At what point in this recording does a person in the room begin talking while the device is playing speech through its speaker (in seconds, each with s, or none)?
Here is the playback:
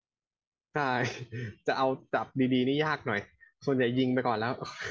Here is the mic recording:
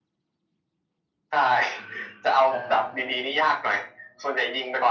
1.8 s